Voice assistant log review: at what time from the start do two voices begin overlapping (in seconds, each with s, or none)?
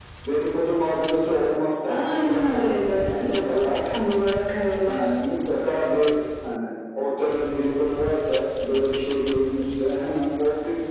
1.8 s